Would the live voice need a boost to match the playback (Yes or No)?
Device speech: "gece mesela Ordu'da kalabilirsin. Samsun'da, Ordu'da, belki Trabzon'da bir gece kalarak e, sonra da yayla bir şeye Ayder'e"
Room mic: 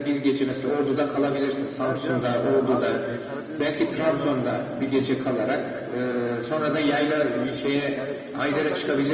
Yes